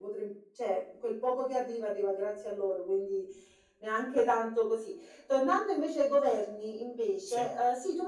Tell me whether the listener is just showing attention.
Yes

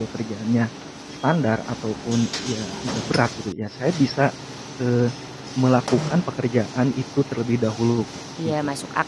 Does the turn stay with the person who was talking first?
No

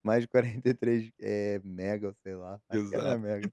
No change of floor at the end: No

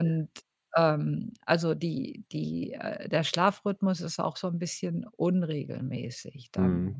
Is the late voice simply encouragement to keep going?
No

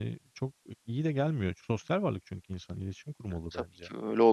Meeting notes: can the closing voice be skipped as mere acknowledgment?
No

